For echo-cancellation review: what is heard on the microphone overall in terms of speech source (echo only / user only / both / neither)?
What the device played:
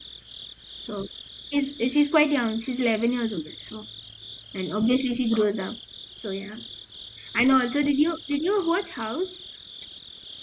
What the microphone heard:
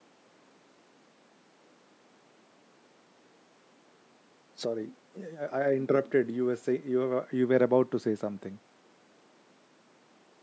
user only